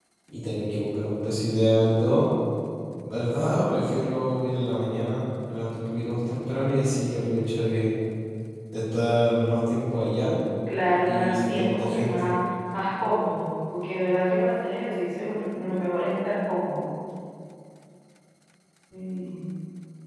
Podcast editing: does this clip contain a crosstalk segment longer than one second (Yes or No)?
Yes